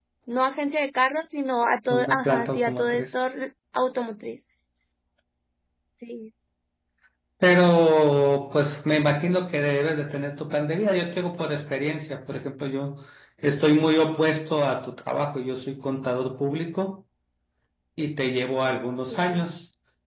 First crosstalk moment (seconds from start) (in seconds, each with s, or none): 1.9 s